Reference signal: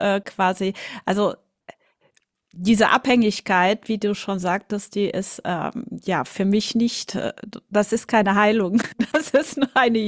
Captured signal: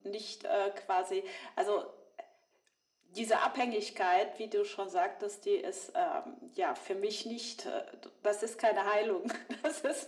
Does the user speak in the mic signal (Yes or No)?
No